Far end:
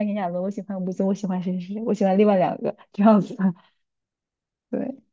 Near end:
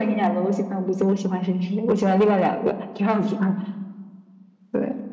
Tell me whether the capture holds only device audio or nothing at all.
Yes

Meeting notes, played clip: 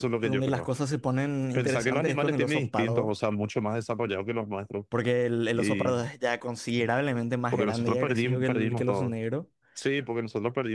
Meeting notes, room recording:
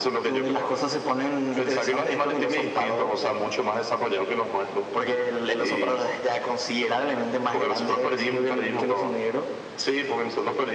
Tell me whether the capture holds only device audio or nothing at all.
Yes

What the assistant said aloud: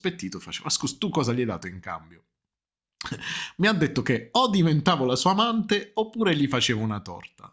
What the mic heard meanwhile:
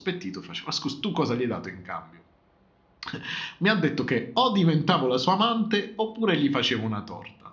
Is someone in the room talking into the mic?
No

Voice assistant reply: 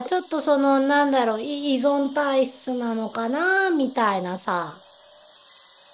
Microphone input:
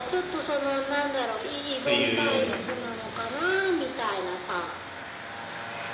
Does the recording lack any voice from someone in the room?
No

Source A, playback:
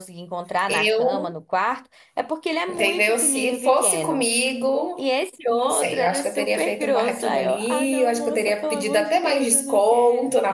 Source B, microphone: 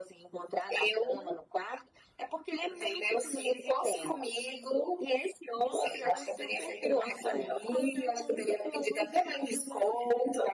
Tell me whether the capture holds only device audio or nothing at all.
Yes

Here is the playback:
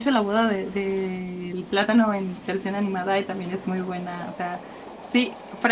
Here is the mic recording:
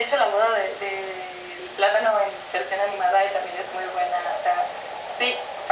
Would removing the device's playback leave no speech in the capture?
Yes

